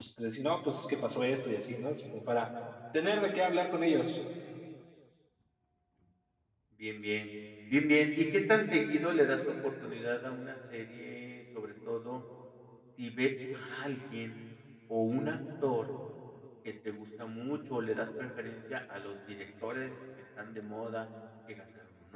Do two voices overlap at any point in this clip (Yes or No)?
No